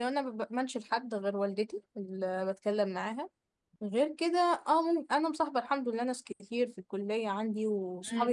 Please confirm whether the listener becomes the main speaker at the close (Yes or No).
Yes